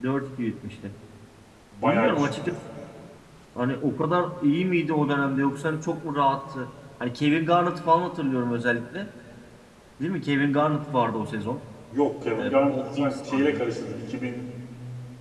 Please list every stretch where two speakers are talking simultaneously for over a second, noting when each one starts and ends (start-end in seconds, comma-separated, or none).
12.4-13.7